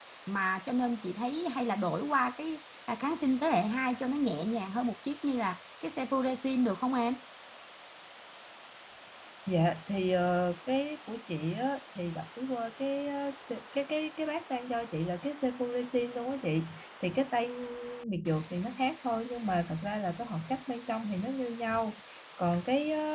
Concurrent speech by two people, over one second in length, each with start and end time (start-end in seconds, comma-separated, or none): none